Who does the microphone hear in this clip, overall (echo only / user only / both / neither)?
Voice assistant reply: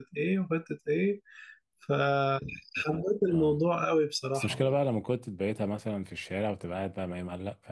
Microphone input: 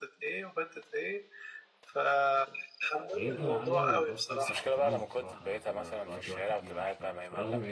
both